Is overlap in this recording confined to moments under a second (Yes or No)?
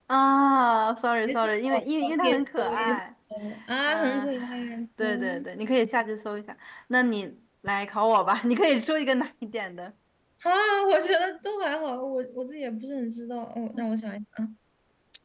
No